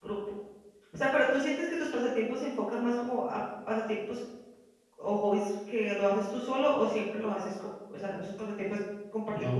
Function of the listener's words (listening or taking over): taking over